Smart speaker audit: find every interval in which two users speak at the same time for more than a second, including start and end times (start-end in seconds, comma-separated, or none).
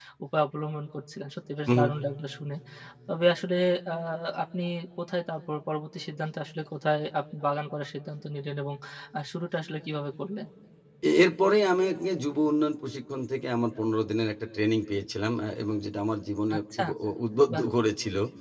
none